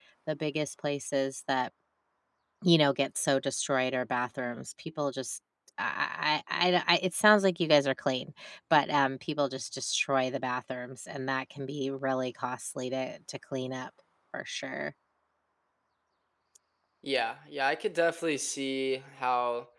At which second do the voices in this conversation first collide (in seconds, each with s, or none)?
none